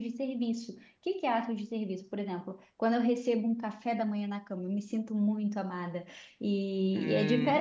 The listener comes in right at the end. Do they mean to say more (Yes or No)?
Yes